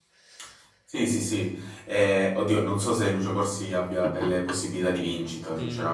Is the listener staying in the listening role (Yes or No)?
No